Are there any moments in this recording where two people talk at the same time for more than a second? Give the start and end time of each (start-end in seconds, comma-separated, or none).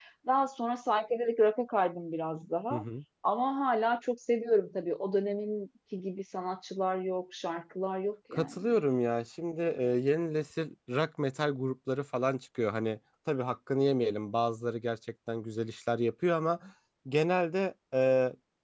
none